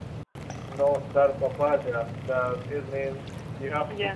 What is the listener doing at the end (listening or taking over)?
listening